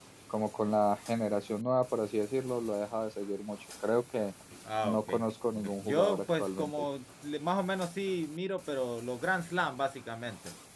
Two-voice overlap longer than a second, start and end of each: 5.5-6.9

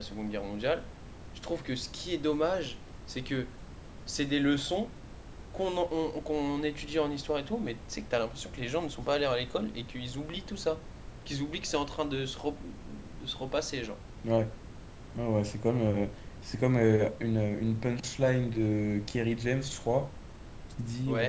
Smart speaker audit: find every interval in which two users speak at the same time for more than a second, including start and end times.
none

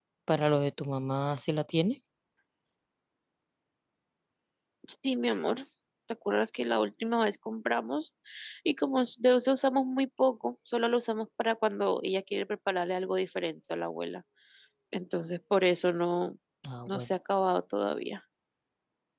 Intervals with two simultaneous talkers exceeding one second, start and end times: none

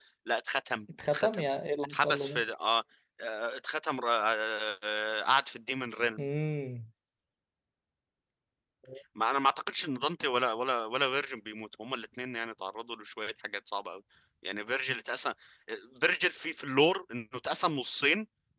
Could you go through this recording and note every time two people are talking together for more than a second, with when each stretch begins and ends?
none

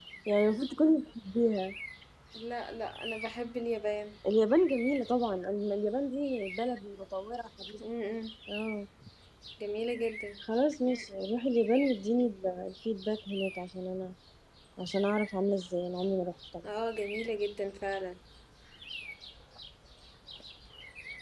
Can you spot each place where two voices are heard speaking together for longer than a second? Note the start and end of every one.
none

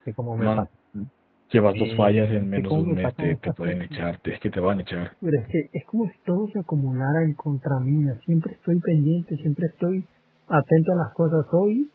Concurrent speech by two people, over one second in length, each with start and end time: 1.7-3.7

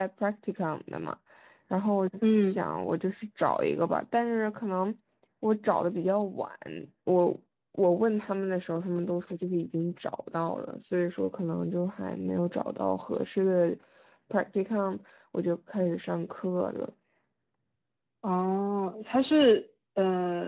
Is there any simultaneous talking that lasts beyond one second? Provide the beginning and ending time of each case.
none

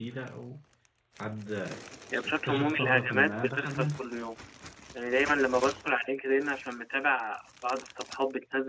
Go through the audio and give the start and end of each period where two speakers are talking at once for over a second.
2.2-4.0

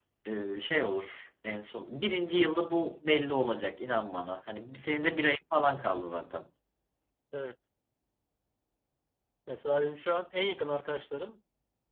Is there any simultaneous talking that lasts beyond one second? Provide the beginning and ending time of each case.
none

